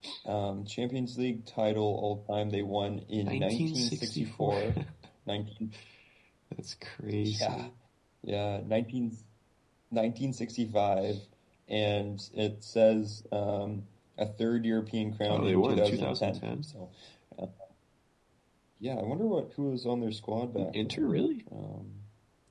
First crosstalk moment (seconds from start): 3 s

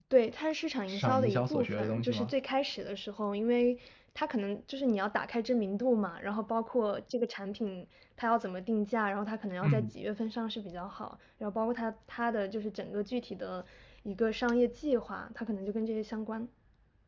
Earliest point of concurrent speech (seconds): 1 s

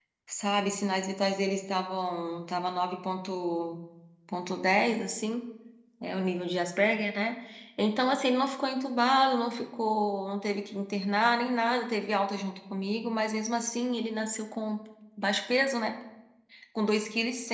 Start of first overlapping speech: none

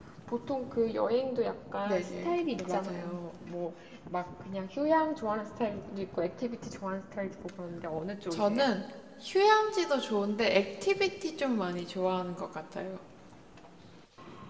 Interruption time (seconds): 2 s

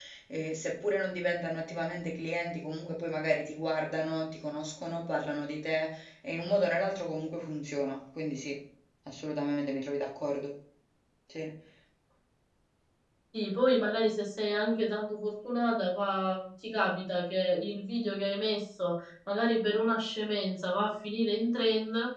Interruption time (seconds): none

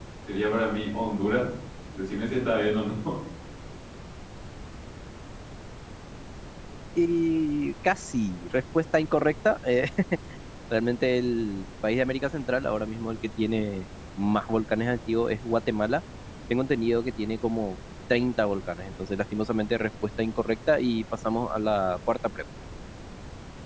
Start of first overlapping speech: none

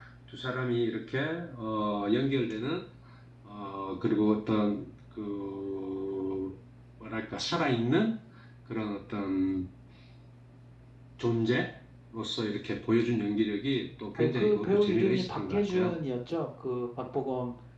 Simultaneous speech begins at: 14 s

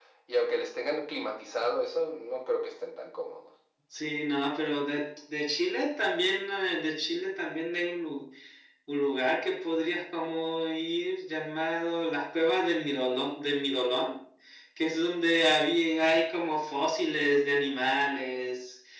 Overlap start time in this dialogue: none

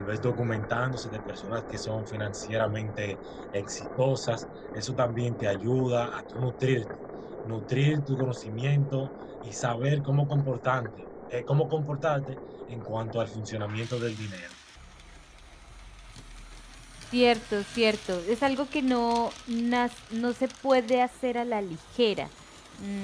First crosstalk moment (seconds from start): none

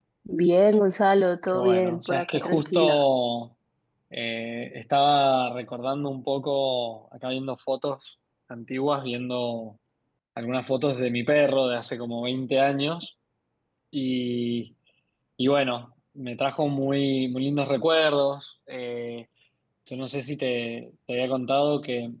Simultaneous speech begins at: 1 s

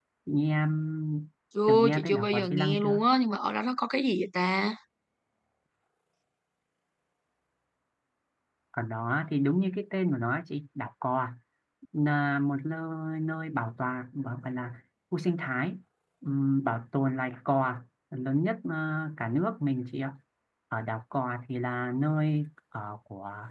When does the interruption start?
2 s

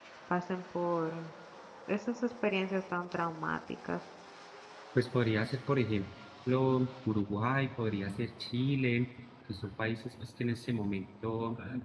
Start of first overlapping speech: none

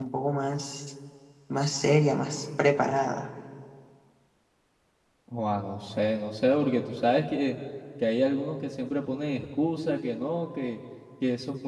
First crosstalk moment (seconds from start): none

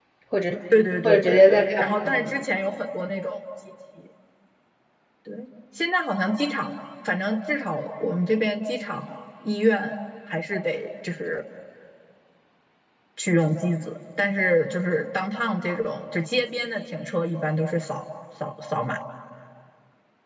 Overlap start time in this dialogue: 1 s

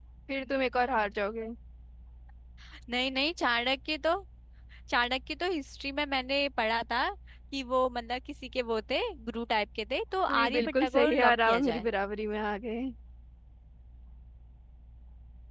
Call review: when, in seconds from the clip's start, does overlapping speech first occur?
10 s

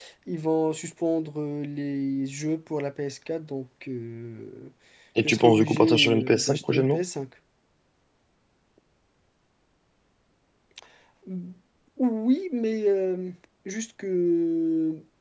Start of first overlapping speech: 5 s

